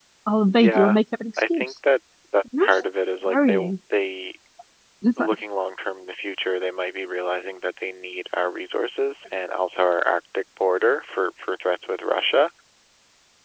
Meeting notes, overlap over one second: none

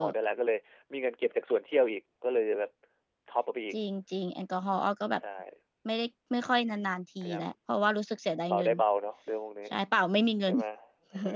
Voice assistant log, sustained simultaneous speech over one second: none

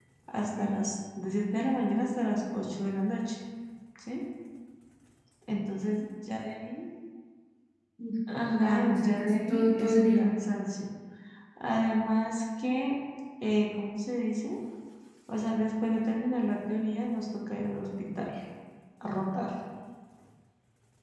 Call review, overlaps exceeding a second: present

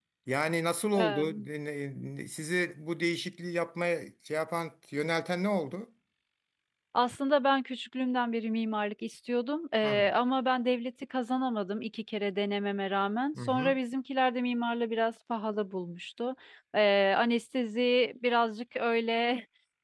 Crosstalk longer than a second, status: none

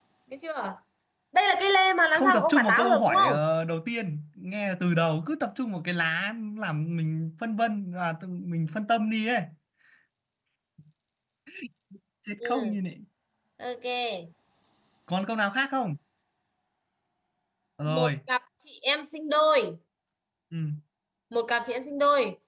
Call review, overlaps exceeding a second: present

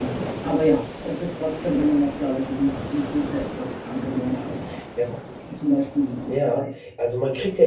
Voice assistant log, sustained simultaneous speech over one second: none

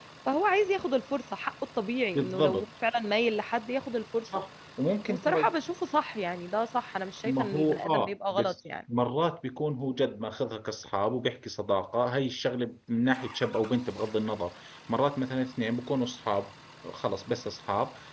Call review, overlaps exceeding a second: present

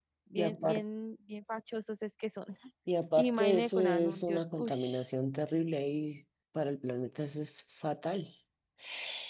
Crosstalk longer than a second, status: present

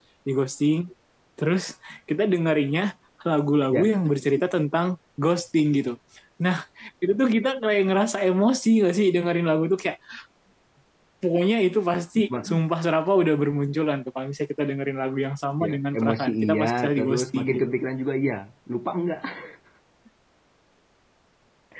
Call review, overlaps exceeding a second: present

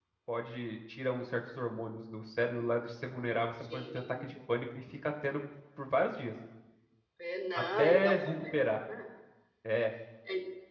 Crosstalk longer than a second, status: present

